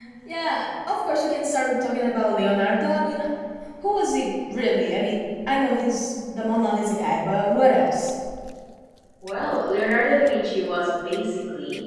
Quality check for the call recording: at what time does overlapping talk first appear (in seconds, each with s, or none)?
none